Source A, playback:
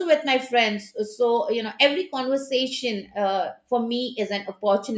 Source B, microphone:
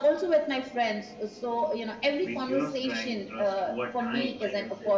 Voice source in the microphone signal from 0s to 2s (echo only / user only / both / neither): echo only